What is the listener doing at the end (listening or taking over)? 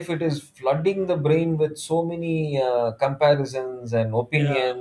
listening